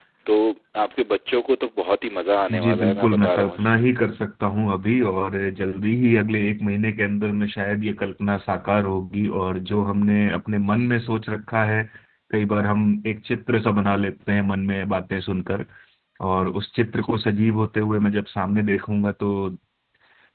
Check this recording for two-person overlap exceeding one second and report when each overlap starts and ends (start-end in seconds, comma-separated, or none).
2.5-3.8